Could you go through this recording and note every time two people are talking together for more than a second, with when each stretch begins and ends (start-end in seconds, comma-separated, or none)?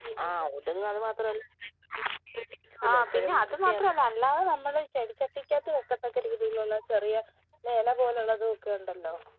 2.9-4.1